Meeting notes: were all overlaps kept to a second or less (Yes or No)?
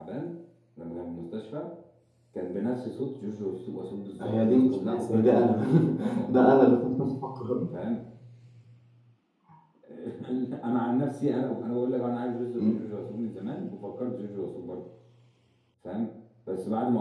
No